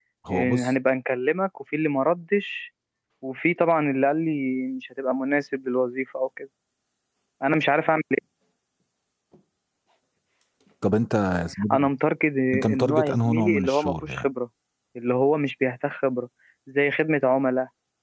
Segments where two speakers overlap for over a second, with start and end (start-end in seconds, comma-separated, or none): 12.7-14.3